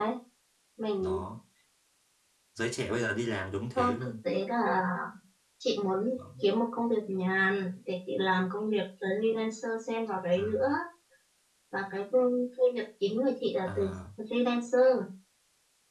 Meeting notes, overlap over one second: none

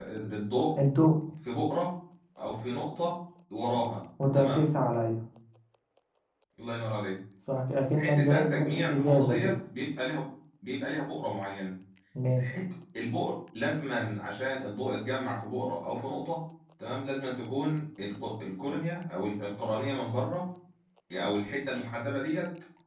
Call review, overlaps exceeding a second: present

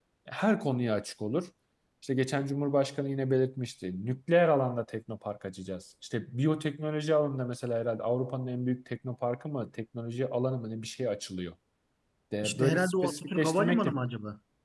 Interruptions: present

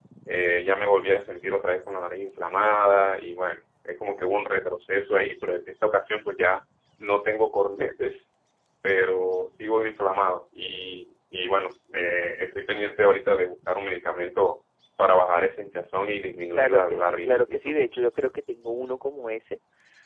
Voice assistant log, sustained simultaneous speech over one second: present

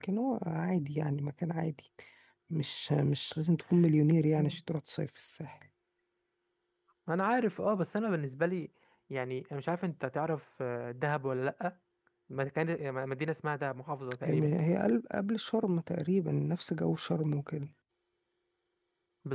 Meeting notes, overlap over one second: none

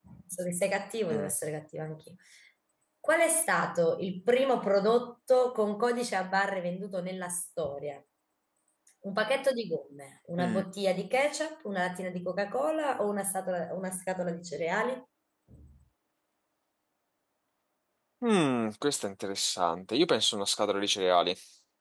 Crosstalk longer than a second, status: none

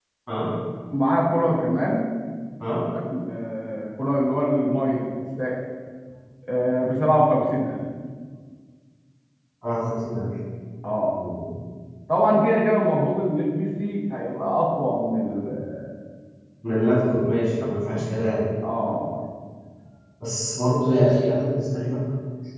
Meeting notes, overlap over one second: none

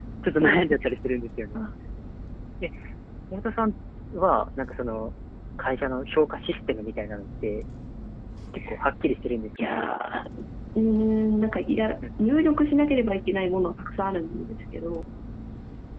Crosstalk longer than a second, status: none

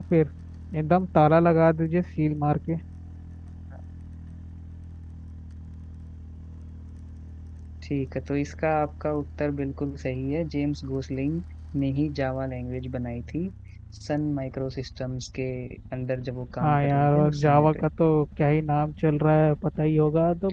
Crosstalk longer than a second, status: present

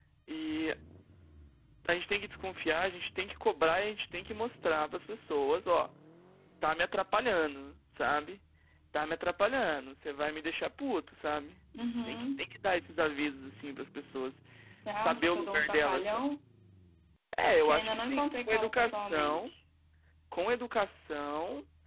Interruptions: present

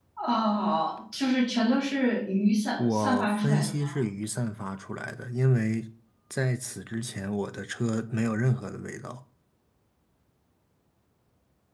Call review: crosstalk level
present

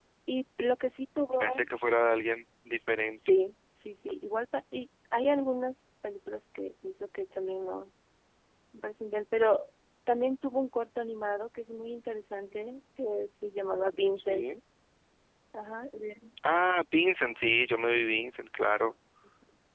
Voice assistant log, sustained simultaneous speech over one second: none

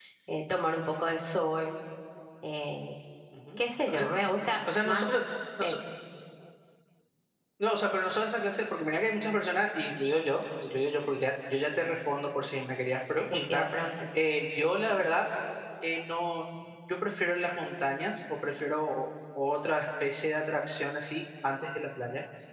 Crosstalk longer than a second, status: none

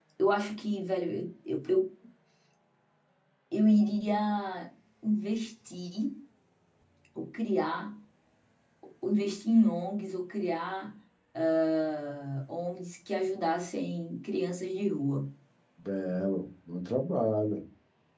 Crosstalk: none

